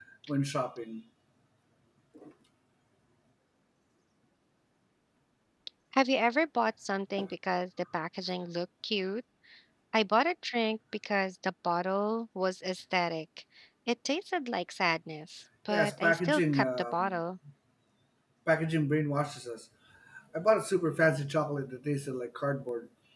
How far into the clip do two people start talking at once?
15.7 s

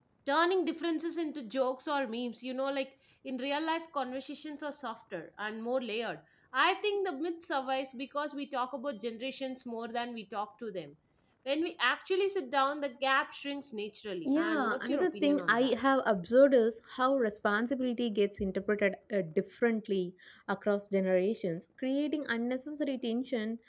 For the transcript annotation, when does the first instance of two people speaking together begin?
14.2 s

